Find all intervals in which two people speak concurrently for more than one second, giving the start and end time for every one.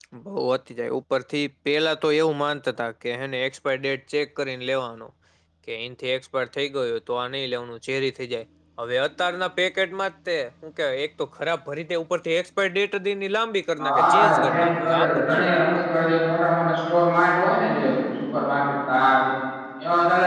13.8-15.8

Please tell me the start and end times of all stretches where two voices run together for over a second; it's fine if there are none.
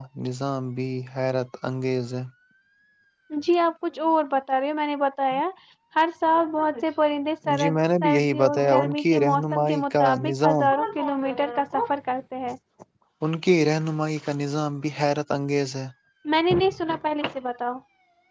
7.6-10.7

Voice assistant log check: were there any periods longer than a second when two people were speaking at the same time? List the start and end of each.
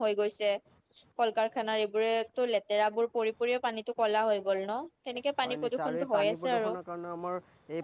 5.4-6.7

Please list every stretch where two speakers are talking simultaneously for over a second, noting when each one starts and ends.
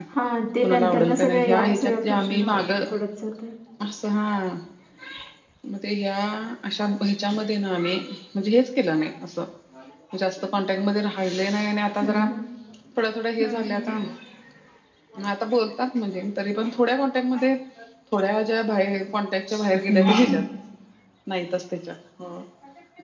0.6-2.5

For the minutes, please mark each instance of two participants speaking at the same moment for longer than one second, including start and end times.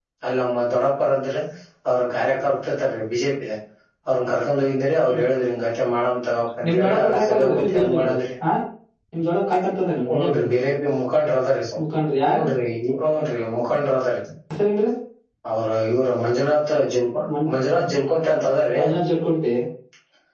6.7-8.2

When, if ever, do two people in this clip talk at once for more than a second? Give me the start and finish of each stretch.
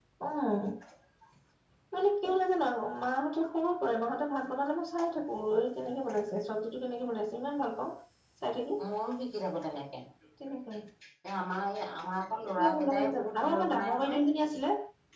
12.6-14.2

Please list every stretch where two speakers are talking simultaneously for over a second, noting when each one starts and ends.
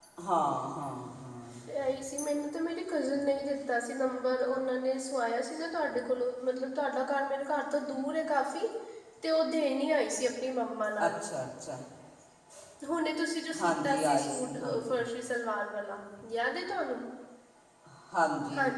13.6-15.0

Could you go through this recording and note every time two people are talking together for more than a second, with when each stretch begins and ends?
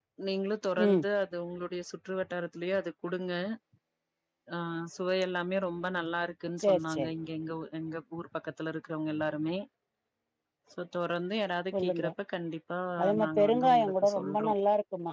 13.2-14.5

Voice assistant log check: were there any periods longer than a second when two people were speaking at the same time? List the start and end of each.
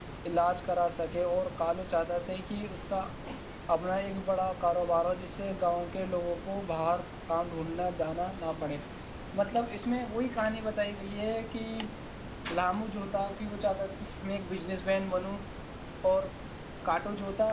none

